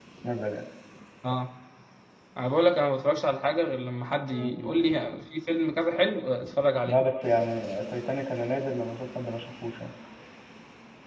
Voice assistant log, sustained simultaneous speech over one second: none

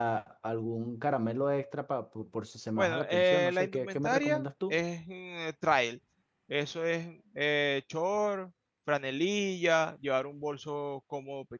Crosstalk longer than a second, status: present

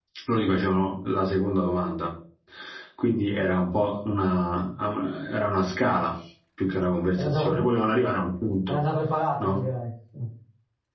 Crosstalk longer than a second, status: none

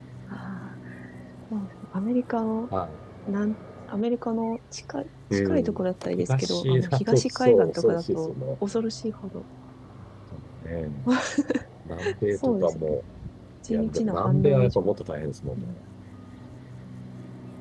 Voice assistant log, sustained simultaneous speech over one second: present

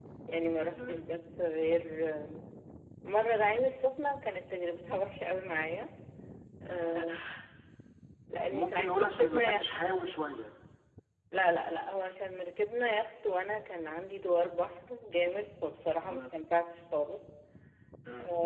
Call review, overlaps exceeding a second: present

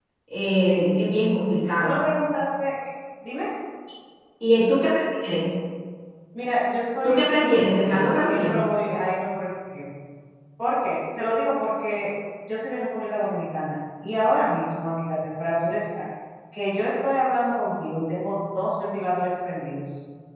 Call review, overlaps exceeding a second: present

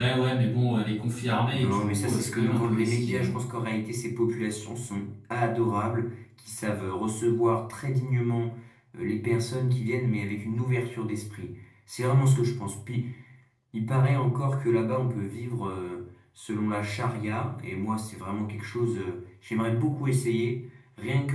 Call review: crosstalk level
present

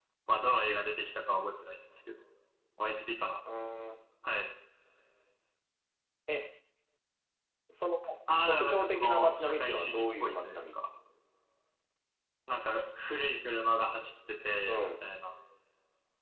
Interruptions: present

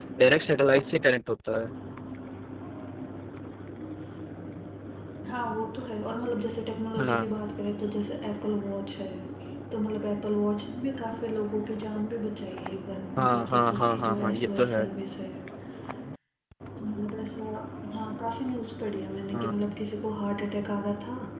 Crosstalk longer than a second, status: present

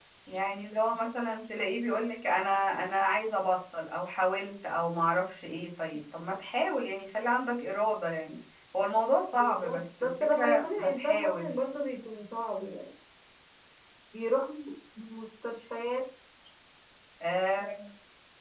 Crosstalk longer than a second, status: present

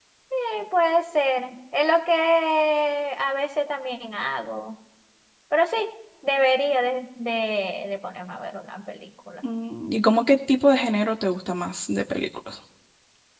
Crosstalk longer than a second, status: none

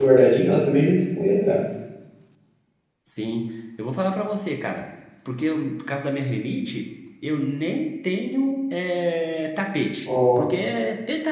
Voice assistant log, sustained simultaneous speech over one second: none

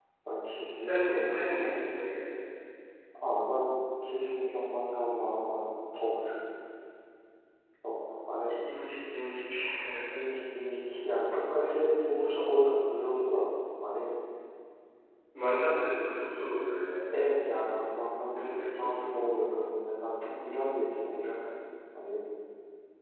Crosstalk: present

